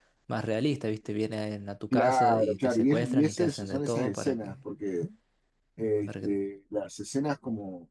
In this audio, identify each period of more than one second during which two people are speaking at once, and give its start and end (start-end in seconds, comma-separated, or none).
1.9-4.5